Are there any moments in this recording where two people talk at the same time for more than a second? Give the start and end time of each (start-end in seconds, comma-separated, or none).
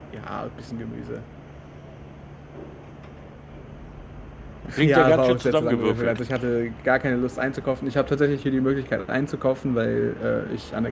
4.8-6.2